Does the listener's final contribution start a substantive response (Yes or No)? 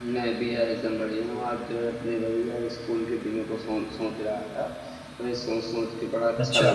No